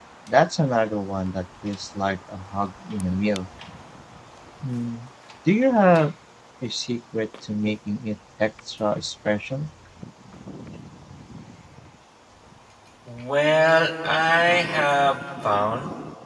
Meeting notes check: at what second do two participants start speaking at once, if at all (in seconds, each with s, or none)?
none